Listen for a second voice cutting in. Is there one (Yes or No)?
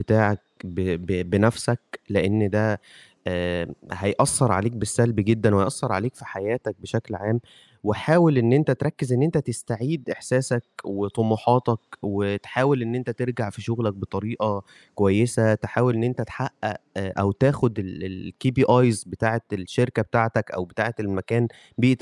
No